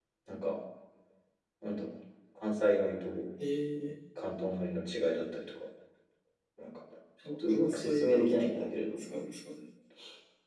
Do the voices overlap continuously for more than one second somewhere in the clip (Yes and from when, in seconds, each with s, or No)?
Yes, from 7.5 s